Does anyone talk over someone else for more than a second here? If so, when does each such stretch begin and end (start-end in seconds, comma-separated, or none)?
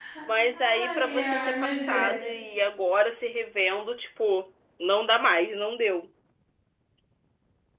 0.5-2.1